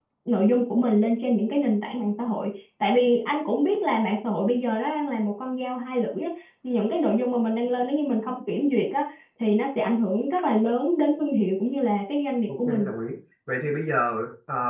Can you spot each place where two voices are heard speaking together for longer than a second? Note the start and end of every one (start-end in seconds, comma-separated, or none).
none